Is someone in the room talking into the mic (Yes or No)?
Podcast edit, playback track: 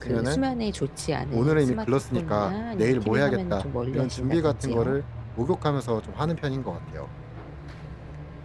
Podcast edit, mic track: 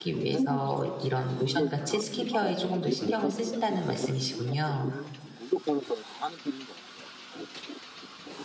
Yes